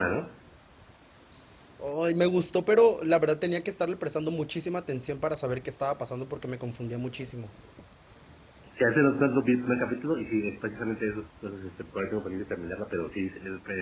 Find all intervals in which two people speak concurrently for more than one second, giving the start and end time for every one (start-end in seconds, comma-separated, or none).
none